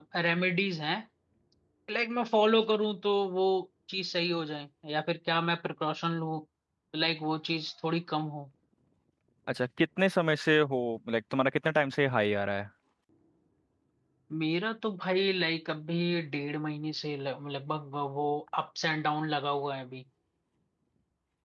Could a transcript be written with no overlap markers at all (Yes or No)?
Yes